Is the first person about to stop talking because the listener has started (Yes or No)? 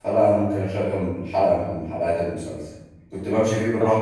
No